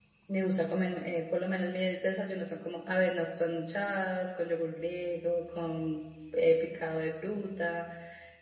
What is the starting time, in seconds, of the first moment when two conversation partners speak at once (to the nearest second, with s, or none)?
none